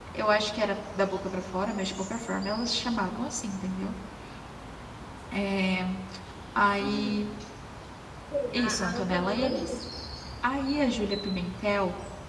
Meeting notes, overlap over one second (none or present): present